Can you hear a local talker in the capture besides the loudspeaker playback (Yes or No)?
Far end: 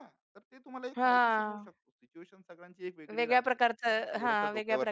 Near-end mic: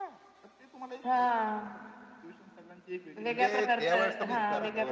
Yes